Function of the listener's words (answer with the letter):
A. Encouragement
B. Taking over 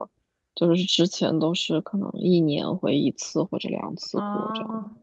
B